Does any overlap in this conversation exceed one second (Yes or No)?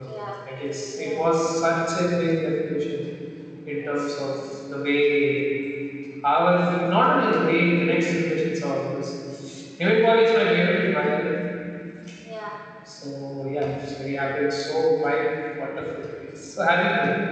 No